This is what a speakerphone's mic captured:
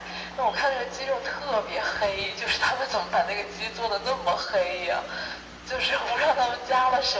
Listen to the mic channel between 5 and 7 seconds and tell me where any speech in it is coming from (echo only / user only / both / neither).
echo only